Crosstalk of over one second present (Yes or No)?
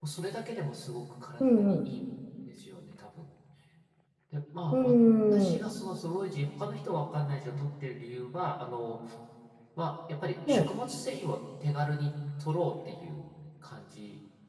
No